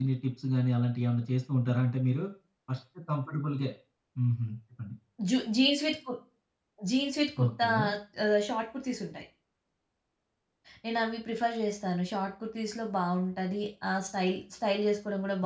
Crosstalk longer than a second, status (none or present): none